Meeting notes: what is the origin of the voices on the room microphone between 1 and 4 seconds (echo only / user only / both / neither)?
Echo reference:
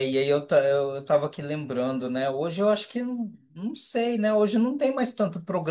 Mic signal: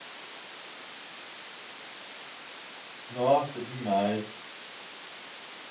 user only